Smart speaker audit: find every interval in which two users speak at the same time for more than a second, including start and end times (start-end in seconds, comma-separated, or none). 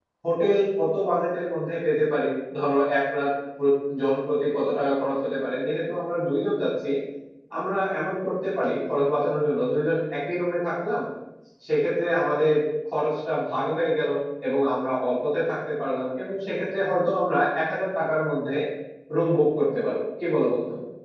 none